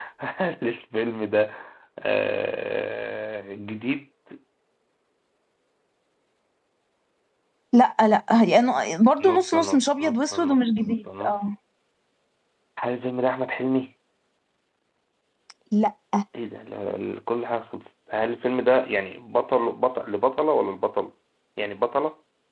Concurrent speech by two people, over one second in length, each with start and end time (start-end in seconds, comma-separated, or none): 9.2-11.4